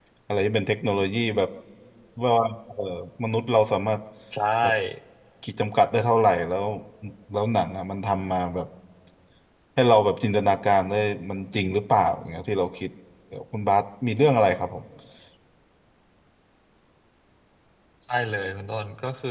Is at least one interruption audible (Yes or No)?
No